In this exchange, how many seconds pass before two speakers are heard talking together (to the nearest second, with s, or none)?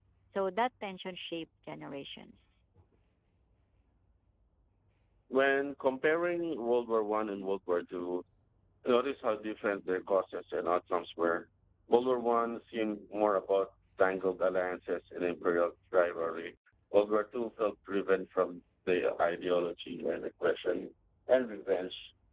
none